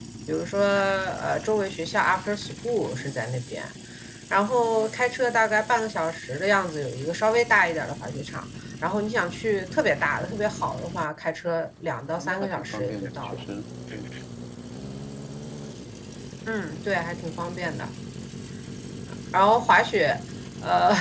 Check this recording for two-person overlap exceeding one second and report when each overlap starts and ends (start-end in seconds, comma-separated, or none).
12.1-13.4